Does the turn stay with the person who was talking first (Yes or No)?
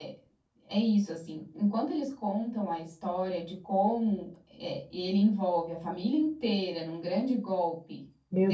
No